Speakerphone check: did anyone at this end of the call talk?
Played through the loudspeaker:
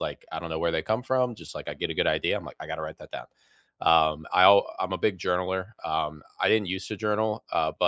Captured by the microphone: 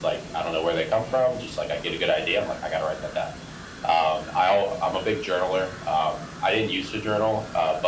No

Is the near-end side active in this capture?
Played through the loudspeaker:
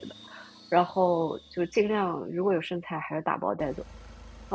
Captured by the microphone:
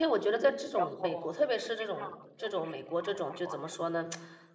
Yes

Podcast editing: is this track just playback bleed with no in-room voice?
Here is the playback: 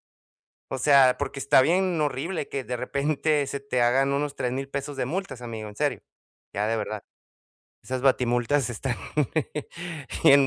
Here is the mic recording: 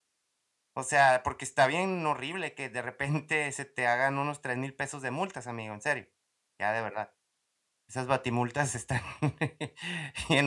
Yes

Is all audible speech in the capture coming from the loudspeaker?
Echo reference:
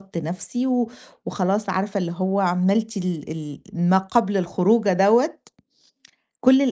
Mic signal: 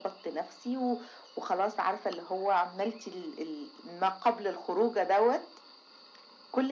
Yes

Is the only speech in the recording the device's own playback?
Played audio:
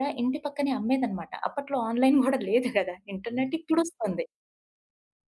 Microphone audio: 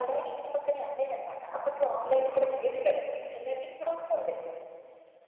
Yes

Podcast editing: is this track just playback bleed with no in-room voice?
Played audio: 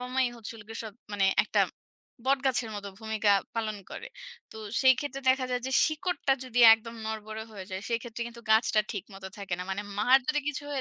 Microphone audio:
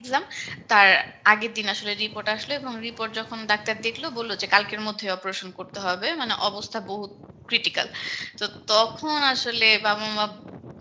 No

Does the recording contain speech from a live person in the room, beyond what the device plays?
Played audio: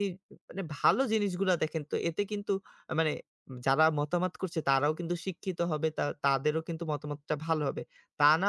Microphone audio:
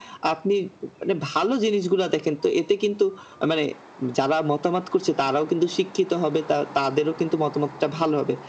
No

